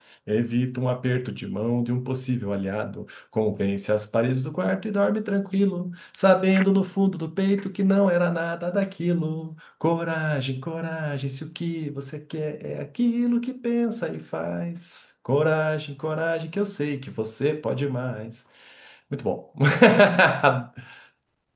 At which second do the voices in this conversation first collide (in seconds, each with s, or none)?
none